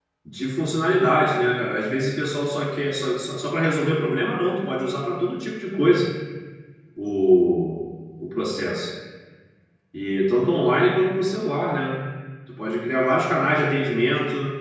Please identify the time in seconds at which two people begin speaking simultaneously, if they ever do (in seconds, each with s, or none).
none